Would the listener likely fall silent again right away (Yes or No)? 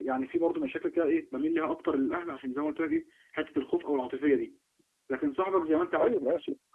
Yes